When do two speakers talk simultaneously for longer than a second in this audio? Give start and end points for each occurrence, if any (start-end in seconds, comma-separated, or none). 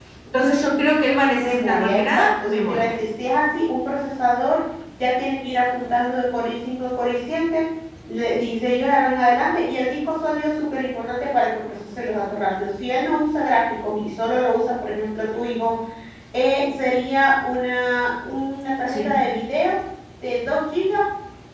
1.4-2.9